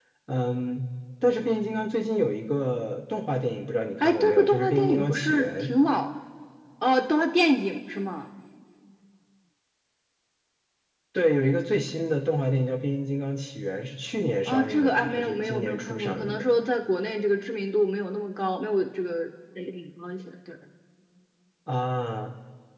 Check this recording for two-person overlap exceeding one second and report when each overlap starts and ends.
4.0-5.6, 14.4-16.5

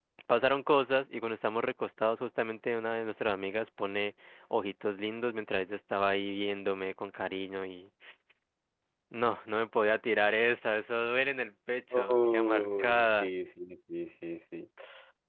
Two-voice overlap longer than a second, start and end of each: 11.9-13.3

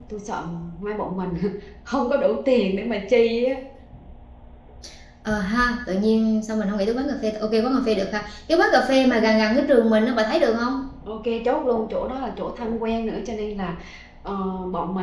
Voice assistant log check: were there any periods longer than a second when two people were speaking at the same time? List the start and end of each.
none

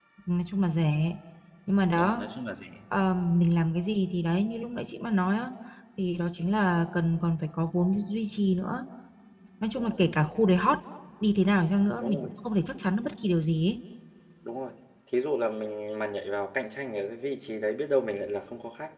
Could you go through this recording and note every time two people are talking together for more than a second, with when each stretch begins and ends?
none

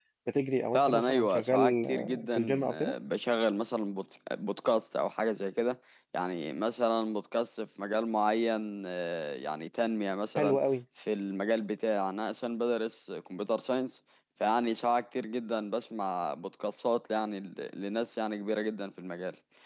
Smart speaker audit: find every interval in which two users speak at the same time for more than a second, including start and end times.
0.7-2.9

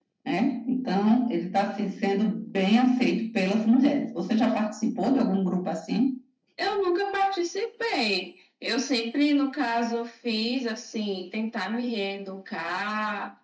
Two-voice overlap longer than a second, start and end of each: none

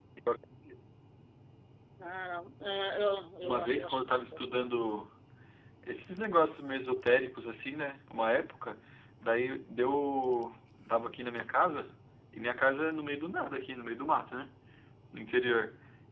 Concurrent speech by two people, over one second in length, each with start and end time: 3.4-4.8

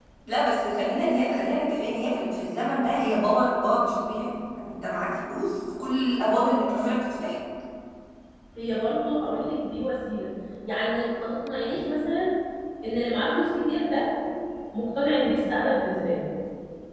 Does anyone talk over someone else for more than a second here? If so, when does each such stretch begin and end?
none

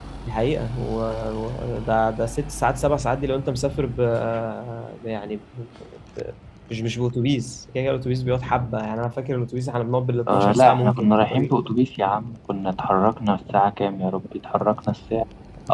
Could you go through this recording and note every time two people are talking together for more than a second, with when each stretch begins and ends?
10.3-11.5

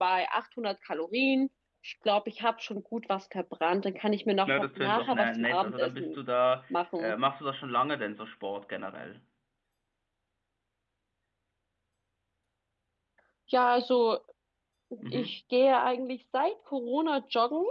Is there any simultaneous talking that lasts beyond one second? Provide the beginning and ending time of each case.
4.5-6.2

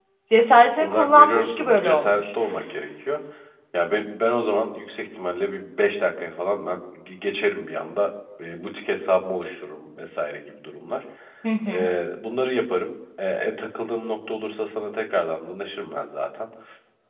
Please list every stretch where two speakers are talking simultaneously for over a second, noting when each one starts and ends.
0.6-2.2

